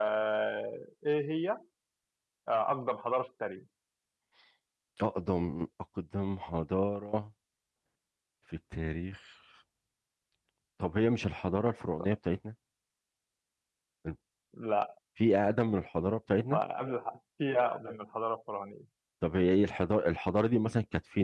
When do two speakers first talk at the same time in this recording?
none

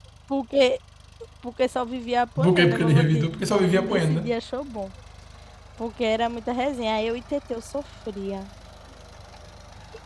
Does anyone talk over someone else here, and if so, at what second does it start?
2 s

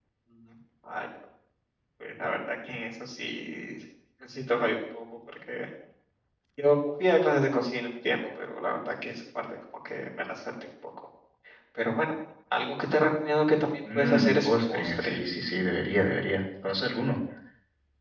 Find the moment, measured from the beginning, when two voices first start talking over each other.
14 s

